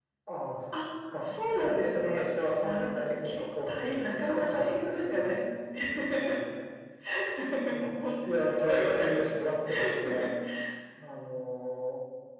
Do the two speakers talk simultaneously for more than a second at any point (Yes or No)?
Yes